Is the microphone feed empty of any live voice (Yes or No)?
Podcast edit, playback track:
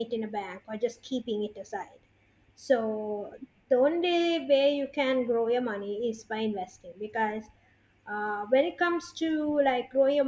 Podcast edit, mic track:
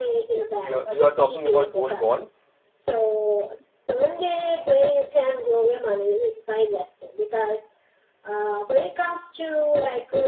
No